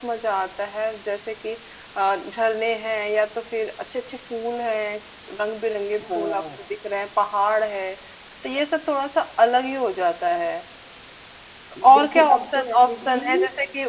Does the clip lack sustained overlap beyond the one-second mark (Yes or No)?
No